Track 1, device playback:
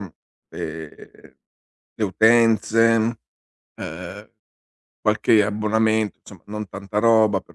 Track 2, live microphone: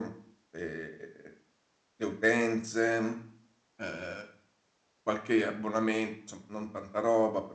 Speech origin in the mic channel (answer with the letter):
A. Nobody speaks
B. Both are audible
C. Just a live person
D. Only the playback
D